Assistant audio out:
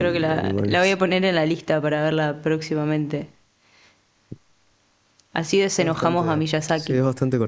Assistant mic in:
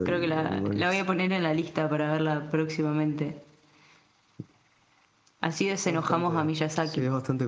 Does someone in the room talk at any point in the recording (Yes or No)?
No